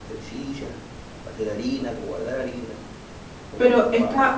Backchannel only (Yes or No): No